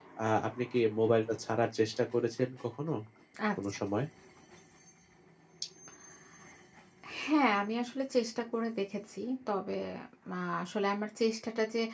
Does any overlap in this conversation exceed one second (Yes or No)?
No